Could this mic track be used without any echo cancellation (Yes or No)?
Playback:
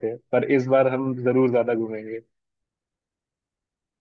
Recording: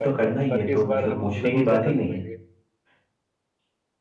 No